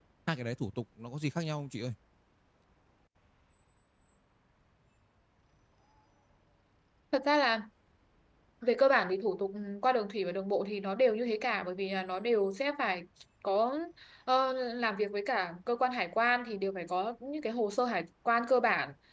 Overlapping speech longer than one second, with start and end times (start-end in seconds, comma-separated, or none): none